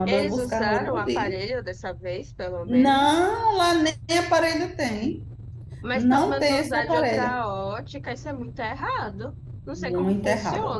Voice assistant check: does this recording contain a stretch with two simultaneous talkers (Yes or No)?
Yes